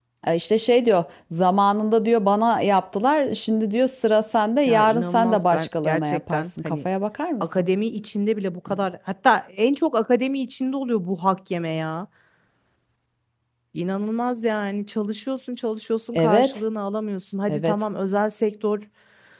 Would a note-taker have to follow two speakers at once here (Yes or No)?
Yes